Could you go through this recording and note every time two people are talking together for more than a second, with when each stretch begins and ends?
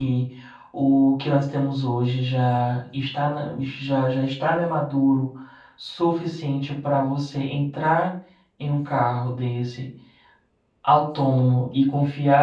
none

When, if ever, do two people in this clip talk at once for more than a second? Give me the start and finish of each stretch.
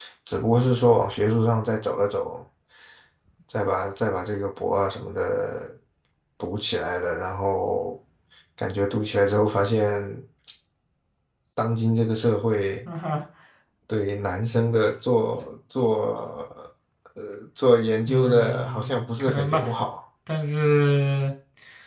18.1-19.6

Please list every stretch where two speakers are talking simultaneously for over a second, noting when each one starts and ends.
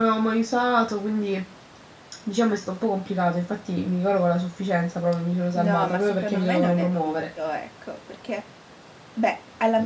5.6-7.2

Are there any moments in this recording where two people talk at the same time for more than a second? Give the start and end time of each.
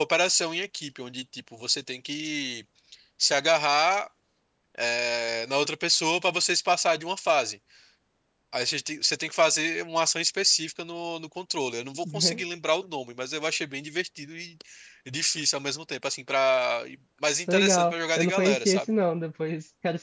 17.5-18.8

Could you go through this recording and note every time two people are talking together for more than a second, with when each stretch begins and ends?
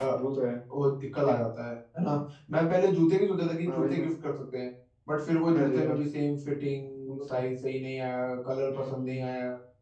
none

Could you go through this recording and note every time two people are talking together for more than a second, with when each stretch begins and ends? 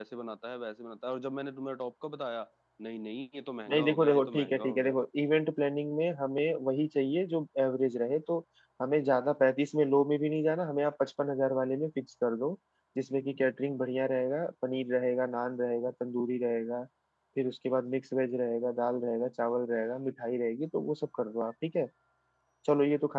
3.7-5.0

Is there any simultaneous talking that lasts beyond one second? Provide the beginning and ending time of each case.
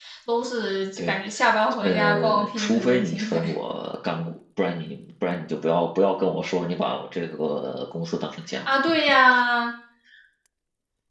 1.8-3.4

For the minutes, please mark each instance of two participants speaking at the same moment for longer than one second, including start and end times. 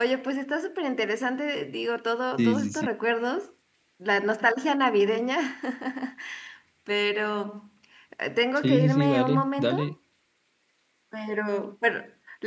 8.6-9.9

